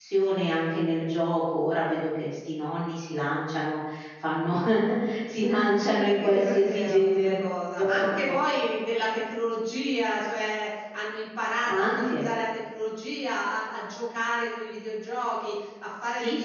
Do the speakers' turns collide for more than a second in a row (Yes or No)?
Yes